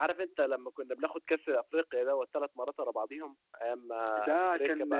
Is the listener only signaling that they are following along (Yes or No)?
No